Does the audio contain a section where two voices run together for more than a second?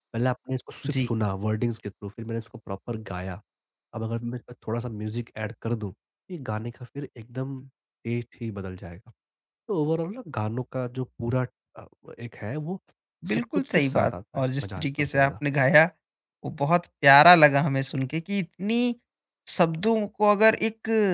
Yes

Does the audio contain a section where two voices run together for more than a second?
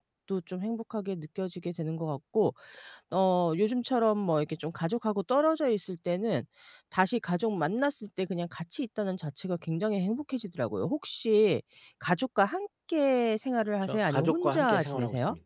Yes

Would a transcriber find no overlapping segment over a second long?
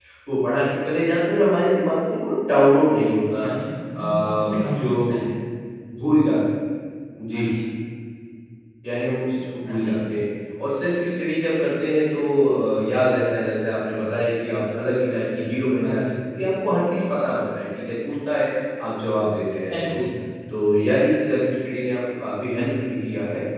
No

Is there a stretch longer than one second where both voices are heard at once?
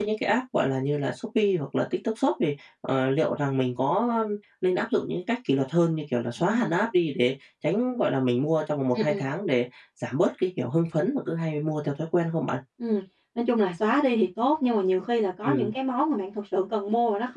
No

